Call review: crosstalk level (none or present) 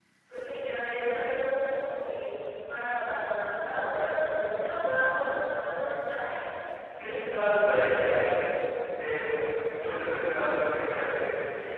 present